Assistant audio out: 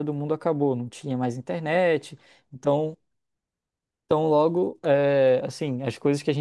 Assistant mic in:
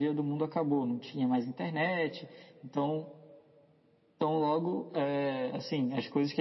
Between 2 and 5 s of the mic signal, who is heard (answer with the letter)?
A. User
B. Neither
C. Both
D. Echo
D